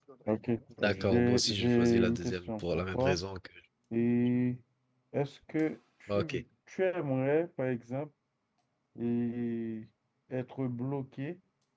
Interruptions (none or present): present